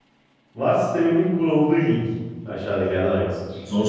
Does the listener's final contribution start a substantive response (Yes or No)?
No